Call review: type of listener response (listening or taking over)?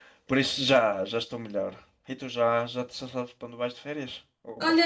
taking over